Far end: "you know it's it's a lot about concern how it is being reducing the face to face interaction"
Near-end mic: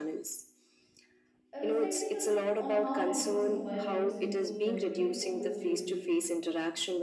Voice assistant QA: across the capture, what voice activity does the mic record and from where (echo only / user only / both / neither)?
both